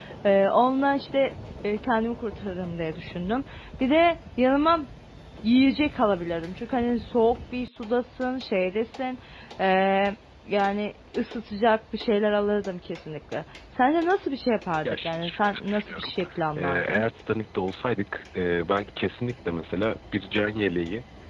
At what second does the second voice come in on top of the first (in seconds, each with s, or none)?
14.8 s